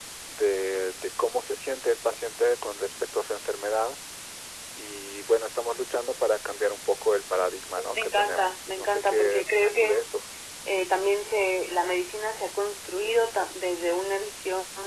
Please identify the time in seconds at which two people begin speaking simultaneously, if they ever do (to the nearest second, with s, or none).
8 s